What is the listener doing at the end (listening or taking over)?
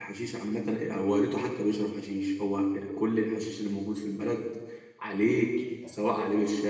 listening